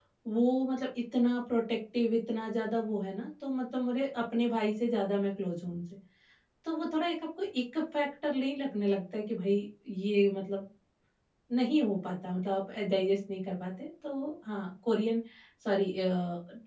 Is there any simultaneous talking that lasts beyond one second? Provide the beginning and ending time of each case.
none

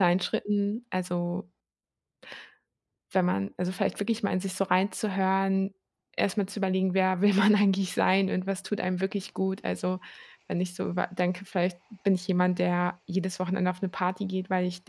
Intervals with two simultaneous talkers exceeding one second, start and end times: none

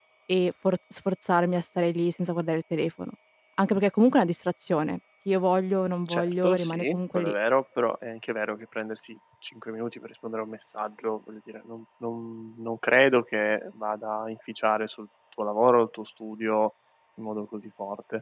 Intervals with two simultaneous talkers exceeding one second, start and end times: 6.1-7.3

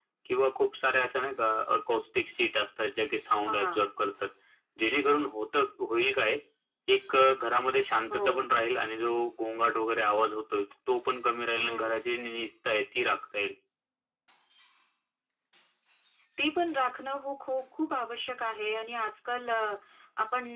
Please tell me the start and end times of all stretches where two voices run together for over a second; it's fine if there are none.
none

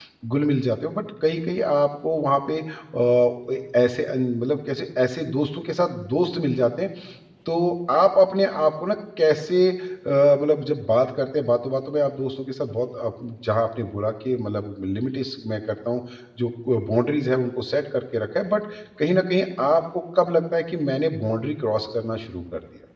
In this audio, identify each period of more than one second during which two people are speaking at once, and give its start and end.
none

